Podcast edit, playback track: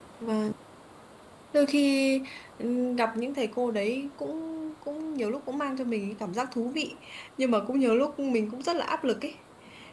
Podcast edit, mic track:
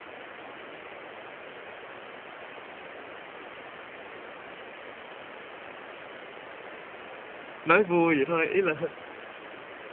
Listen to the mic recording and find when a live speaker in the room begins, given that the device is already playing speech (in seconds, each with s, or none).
7.6 s